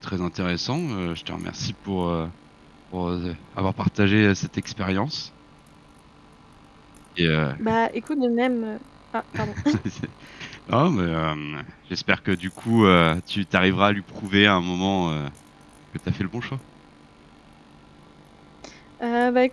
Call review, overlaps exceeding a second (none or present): none